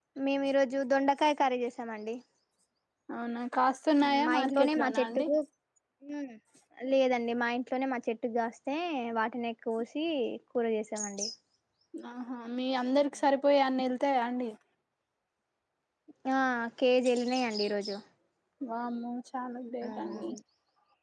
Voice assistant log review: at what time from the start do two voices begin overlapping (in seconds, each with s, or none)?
4.0 s